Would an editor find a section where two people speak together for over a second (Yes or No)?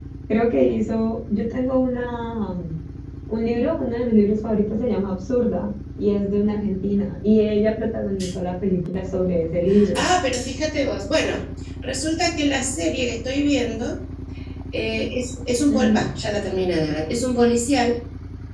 No